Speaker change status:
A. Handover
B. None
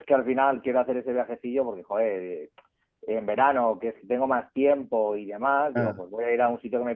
B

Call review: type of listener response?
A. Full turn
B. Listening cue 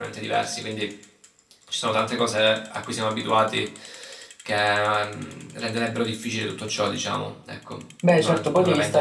A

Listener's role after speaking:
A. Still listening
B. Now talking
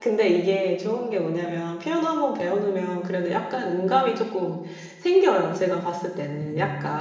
B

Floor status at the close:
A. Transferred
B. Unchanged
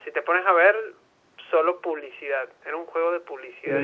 A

